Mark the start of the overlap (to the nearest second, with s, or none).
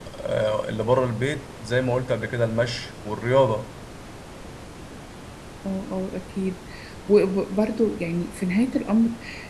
none